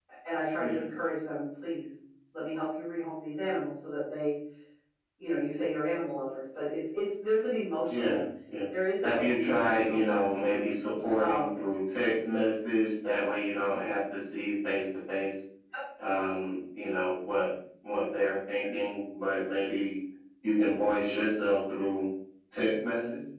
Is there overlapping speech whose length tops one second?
Yes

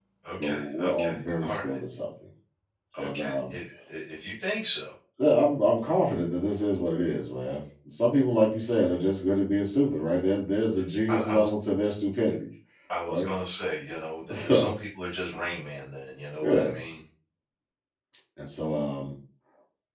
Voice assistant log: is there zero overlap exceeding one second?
No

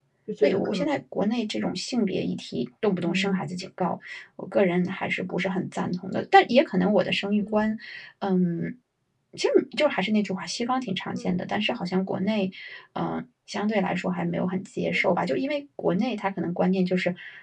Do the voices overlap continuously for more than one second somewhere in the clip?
No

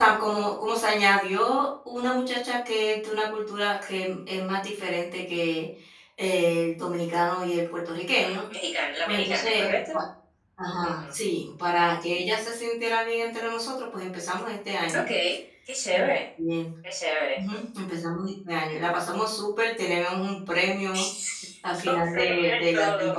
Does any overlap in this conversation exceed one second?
Yes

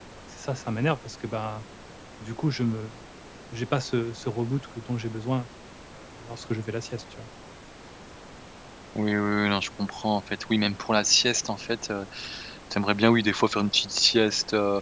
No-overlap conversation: Yes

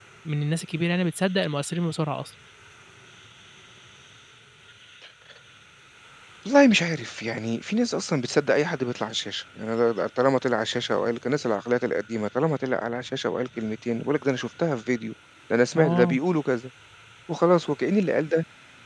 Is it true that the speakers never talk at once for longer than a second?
Yes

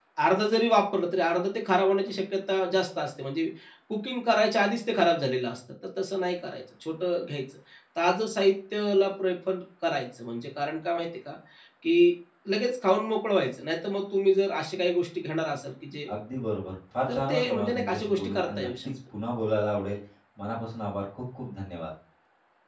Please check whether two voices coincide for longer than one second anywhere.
Yes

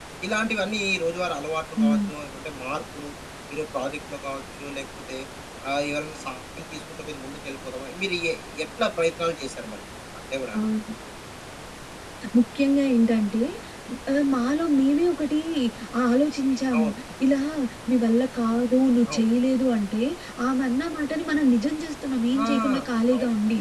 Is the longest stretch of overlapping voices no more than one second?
Yes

